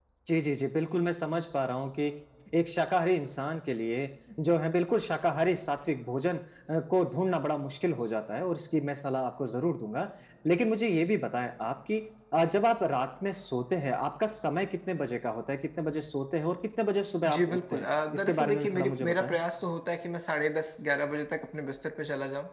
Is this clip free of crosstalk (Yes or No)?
No